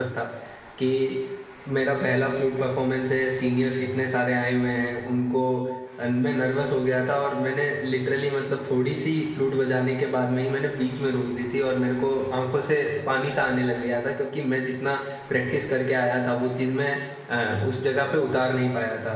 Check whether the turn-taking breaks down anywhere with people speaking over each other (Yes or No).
No